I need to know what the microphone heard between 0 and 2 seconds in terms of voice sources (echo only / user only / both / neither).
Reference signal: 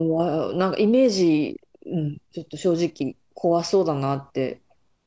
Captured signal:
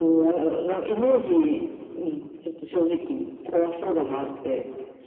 echo only